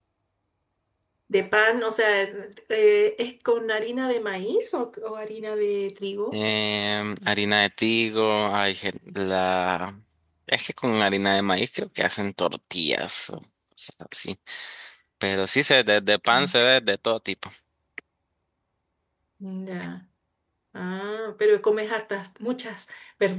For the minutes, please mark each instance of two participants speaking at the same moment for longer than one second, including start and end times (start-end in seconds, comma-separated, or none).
none